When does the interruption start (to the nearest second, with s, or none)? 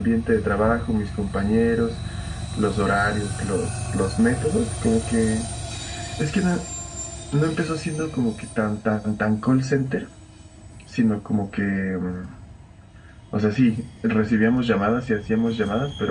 none